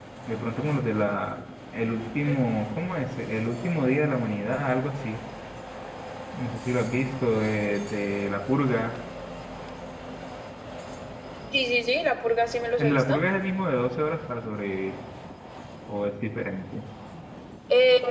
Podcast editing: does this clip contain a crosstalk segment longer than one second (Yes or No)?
No